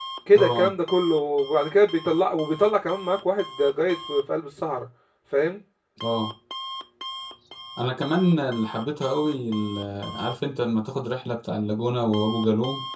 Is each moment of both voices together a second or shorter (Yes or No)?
Yes